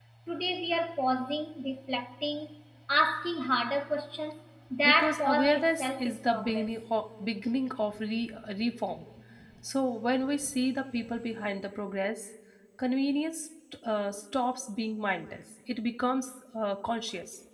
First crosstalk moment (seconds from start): 4.8 s

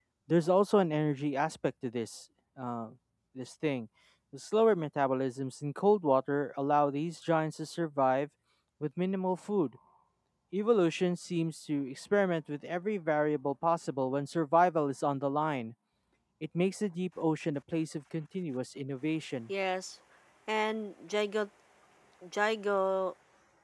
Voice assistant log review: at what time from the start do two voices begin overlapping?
none

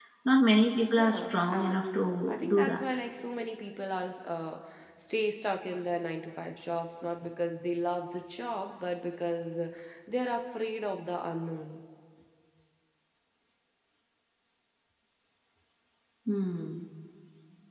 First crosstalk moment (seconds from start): 1.0 s

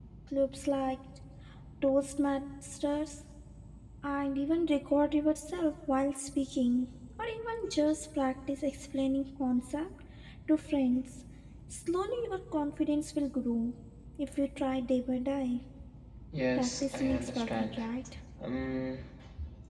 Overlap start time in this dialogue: 16.6 s

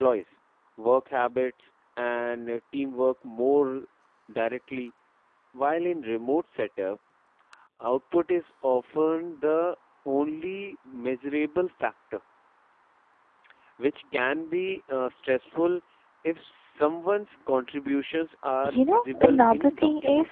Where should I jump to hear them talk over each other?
18.6 s

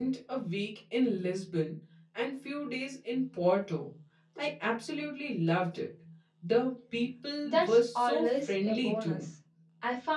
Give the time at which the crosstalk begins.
7.4 s

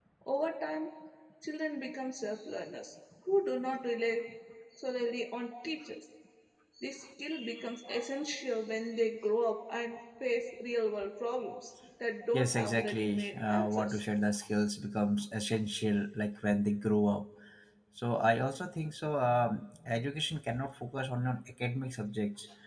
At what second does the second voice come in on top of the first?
12.3 s

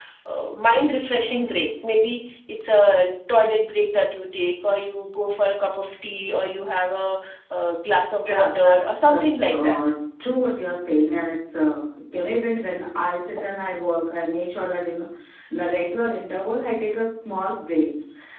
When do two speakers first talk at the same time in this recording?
8.2 s

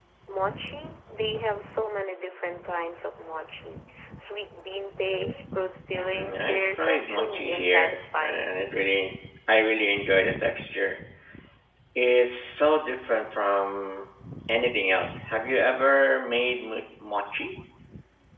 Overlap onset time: 6.1 s

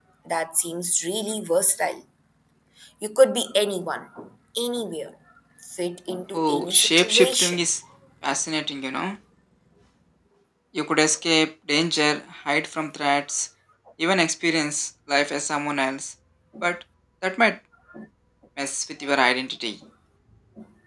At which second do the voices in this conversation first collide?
6.3 s

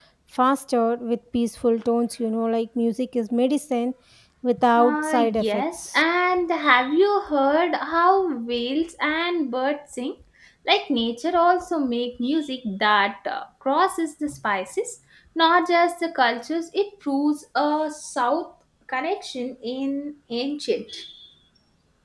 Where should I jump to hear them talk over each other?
4.8 s

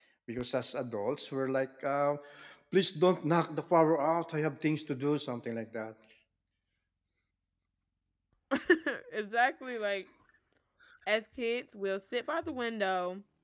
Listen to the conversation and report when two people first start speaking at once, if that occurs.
none

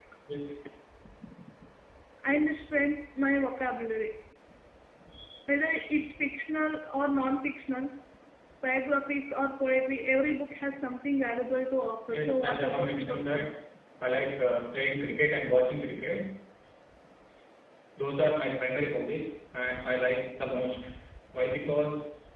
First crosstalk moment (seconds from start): 12.1 s

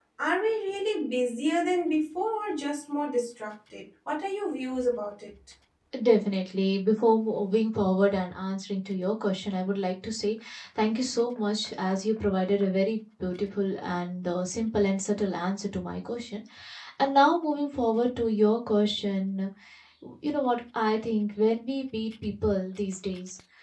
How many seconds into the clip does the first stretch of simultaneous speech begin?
none

